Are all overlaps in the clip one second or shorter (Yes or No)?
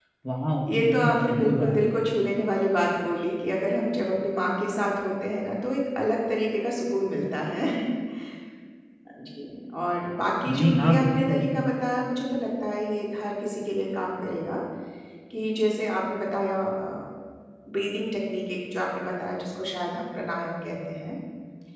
No